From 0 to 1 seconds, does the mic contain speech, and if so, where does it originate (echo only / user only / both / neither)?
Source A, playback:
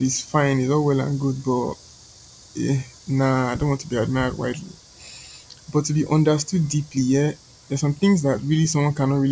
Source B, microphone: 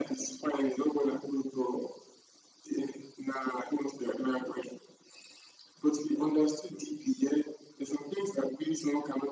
echo only